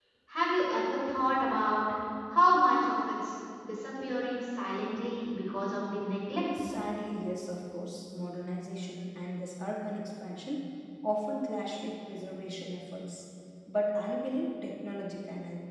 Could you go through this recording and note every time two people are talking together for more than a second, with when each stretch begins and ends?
none

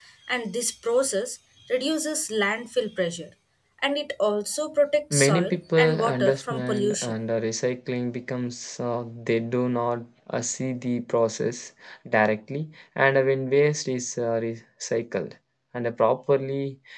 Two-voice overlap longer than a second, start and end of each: 5.1-7.1

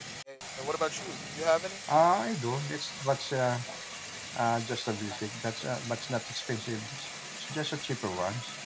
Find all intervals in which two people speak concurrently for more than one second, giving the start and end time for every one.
none

